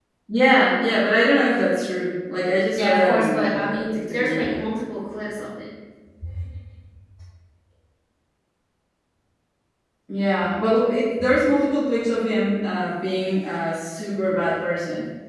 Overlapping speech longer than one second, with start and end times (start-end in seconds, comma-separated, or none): 2.7-4.6